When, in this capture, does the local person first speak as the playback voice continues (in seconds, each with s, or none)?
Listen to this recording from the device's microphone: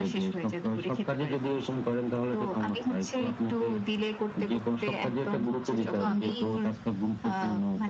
5.8 s